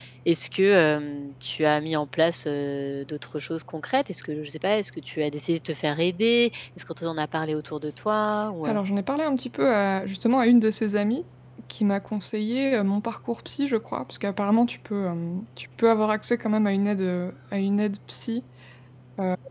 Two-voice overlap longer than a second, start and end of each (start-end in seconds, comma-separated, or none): none